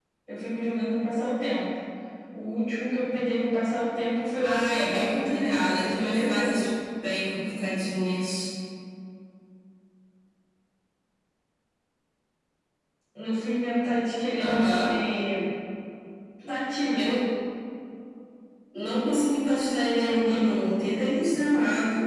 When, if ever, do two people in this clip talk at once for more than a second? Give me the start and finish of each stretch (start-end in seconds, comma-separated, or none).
4.4-6.6